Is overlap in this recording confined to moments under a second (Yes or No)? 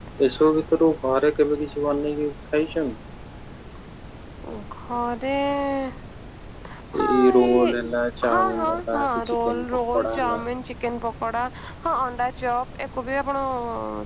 No